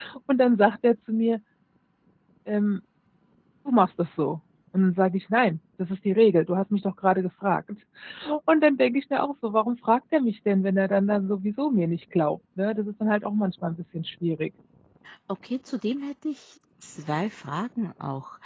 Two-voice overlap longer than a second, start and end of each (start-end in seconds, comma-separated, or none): none